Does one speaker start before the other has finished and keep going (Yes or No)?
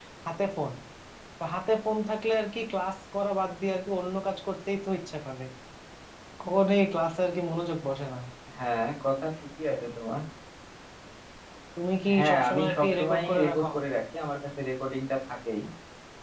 Yes